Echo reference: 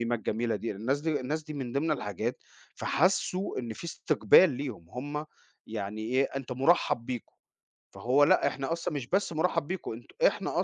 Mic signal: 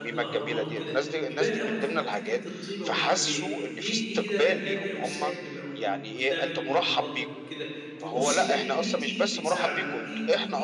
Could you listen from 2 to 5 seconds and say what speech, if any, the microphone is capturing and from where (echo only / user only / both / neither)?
both